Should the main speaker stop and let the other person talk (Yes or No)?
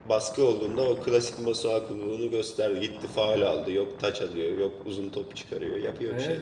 Yes